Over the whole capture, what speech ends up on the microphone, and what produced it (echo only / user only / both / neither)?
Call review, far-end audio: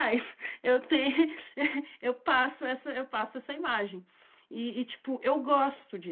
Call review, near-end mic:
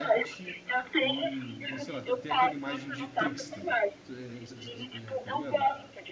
both